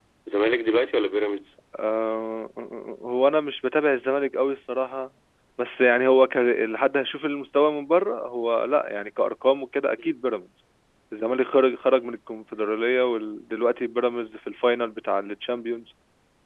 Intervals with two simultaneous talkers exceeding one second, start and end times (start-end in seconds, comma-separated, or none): none